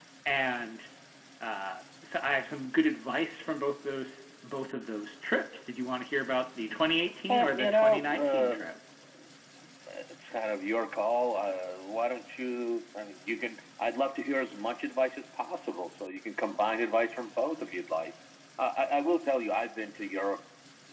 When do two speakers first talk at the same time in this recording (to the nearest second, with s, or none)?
7 s